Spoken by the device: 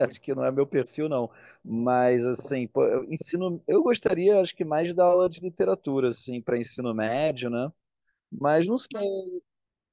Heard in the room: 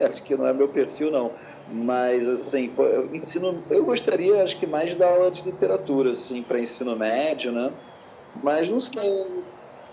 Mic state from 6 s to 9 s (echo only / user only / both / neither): echo only